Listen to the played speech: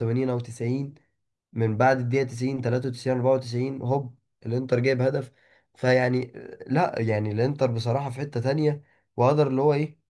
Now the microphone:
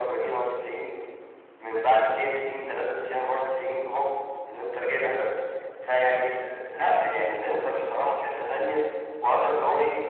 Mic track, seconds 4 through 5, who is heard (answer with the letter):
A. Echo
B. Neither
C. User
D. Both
A